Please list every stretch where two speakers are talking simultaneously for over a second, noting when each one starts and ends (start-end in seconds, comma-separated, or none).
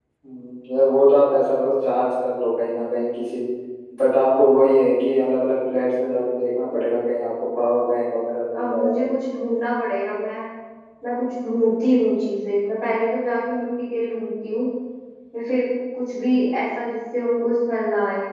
none